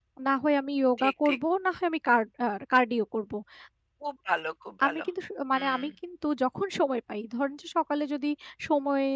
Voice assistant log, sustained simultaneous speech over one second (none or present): none